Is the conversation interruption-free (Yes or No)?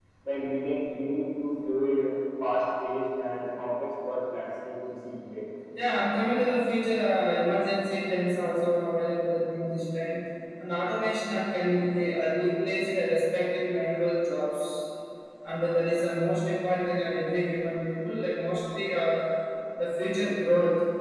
Yes